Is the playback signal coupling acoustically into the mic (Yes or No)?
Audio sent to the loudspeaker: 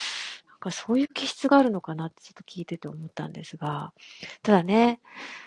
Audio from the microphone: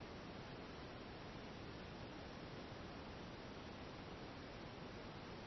No